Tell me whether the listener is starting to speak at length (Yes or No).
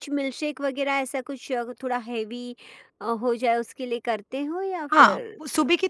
Yes